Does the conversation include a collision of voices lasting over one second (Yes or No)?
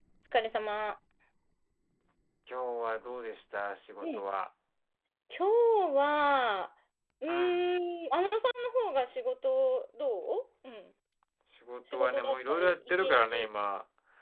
Yes